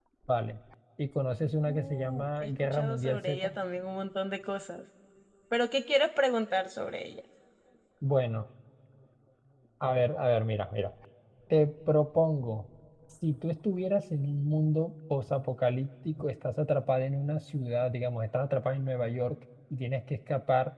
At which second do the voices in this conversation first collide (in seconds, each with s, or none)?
1.7 s